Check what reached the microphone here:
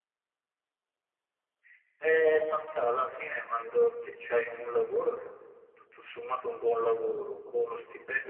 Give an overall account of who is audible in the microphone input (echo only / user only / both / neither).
echo only